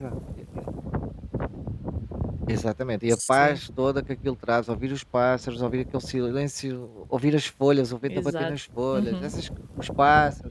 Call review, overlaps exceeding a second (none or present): none